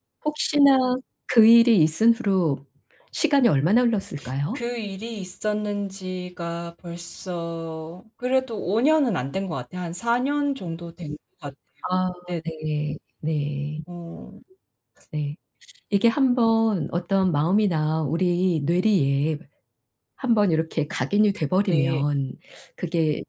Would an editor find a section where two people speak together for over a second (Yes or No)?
No